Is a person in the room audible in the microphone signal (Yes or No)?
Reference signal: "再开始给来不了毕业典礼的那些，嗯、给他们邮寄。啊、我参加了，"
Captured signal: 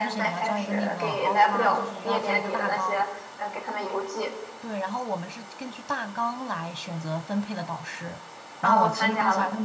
Yes